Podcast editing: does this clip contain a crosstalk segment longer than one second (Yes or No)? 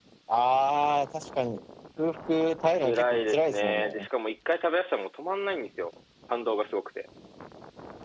Yes